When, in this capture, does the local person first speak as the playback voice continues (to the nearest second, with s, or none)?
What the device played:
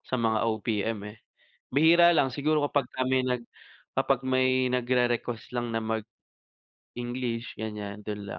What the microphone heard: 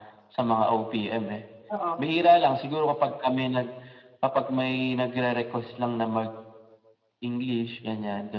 2 s